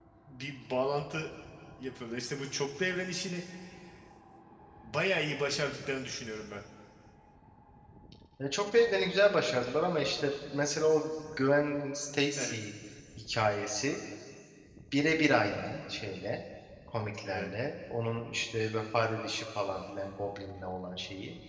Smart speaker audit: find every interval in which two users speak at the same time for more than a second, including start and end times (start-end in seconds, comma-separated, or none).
none